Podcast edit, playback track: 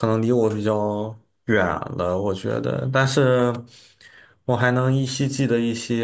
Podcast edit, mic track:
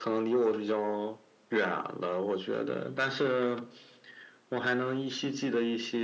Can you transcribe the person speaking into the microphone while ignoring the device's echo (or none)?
none